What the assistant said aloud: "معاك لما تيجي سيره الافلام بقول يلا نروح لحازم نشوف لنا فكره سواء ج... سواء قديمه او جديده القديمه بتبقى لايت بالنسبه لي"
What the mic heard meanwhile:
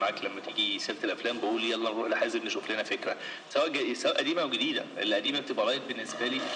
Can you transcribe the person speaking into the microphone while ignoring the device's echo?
none

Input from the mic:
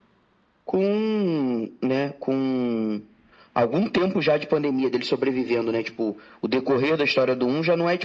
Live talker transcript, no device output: none

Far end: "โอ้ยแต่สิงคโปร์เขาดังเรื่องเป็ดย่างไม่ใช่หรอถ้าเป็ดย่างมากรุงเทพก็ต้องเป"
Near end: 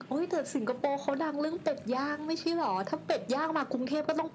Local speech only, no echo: none

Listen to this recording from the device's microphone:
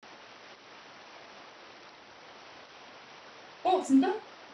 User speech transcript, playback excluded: 어 진짜?

